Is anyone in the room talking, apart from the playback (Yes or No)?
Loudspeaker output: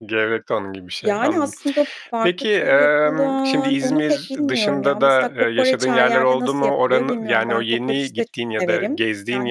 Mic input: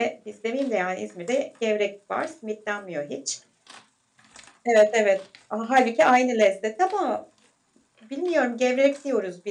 Yes